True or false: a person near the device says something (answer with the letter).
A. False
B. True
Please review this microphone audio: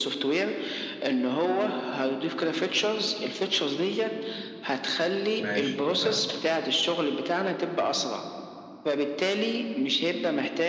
B